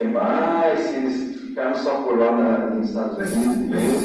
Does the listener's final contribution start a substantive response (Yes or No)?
Yes